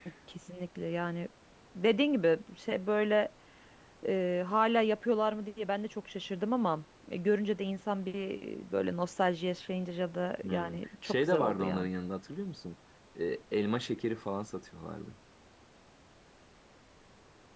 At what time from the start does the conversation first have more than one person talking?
10.4 s

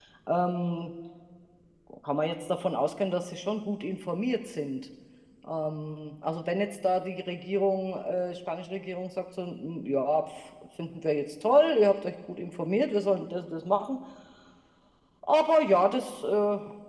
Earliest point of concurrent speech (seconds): none

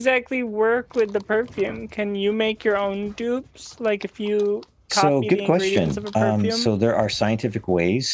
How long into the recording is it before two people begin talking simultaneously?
4.9 s

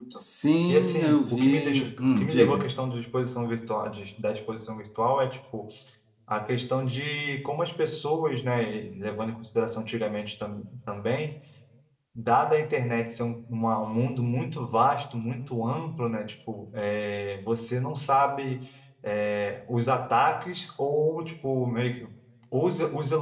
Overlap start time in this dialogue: 0.7 s

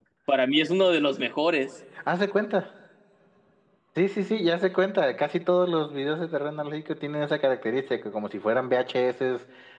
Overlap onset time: none

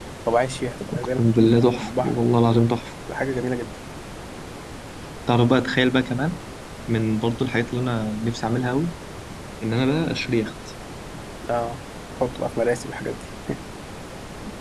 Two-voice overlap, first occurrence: 0.9 s

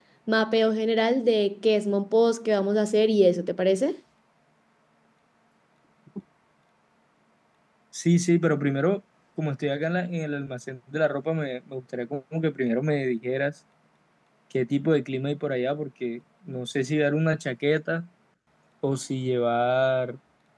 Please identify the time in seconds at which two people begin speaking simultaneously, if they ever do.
none

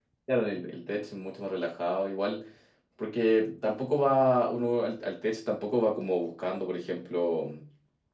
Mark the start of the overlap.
none

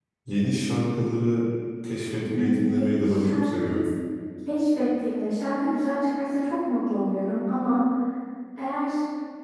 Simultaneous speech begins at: 2.2 s

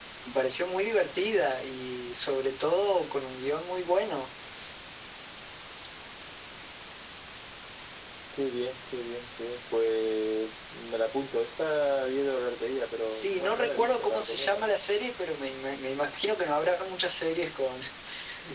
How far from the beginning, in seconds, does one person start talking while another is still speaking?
13.1 s

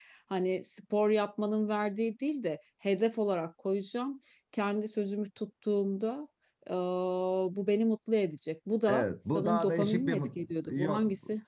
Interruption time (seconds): 8.9 s

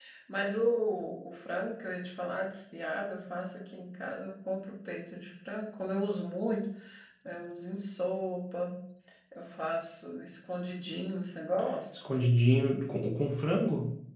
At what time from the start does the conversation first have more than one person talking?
none

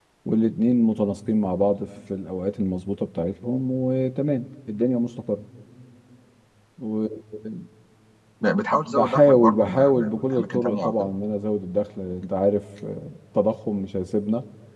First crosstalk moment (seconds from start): 8.7 s

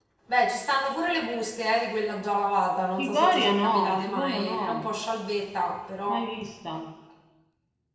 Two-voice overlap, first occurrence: 3.0 s

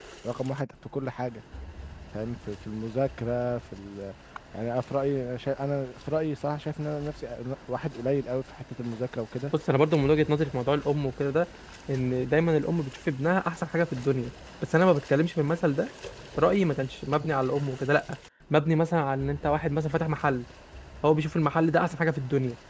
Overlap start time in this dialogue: none

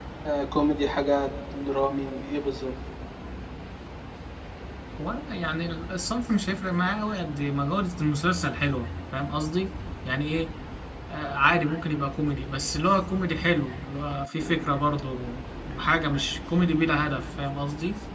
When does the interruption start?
none

